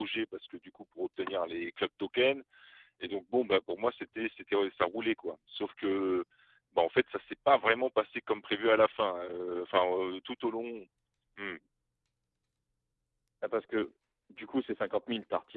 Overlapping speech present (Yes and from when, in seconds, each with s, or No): No